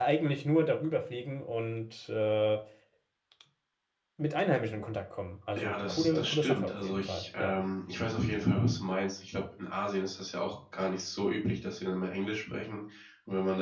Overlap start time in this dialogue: 5.6 s

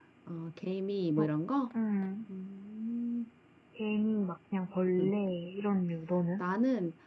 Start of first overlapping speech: none

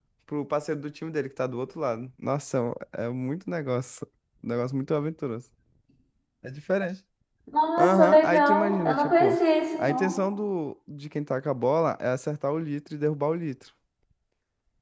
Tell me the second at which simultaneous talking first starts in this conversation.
7.8 s

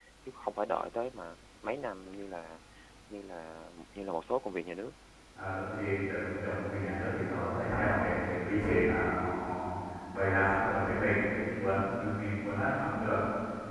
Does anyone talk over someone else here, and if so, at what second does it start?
none

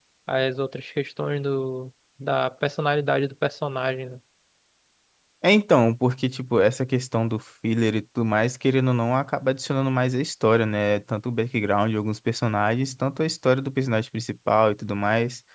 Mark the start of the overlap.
none

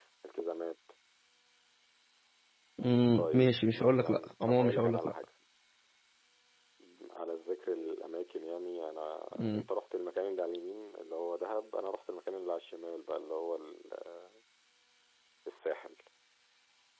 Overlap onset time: 3.1 s

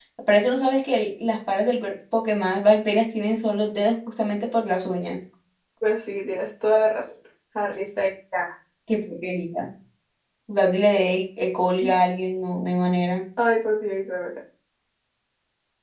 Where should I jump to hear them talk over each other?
none

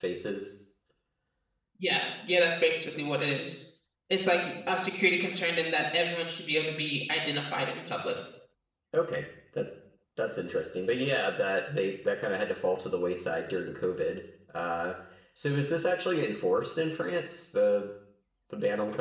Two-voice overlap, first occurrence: none

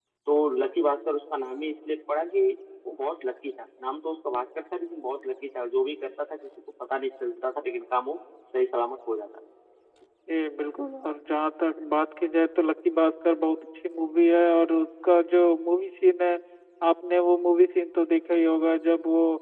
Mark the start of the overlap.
none

